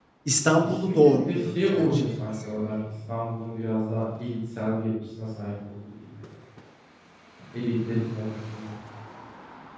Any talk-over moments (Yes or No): Yes